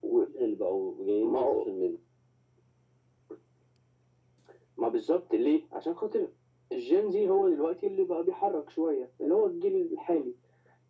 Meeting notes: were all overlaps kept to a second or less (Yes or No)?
Yes